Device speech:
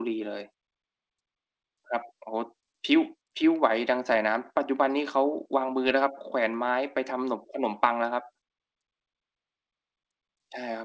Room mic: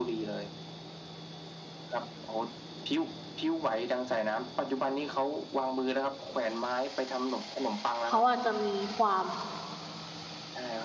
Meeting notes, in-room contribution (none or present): present